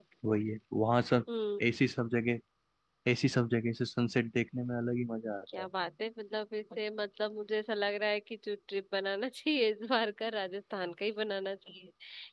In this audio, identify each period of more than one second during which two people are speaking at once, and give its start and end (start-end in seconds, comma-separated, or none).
none